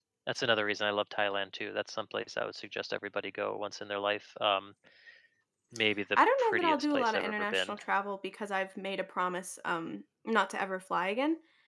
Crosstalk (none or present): present